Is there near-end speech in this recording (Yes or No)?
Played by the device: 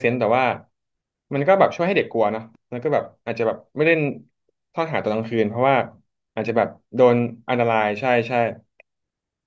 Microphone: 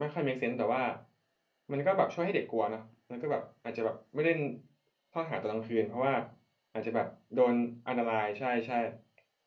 No